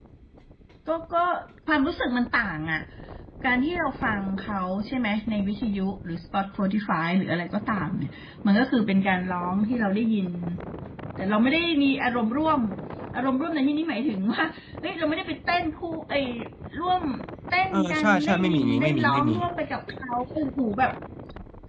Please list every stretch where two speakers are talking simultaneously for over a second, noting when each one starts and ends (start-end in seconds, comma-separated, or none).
17.7-19.3